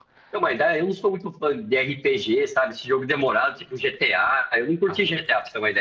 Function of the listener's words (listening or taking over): listening